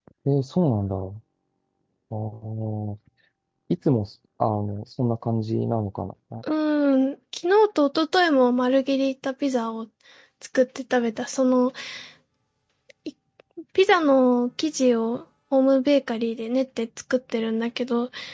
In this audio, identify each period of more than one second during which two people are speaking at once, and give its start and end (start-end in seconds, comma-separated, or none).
none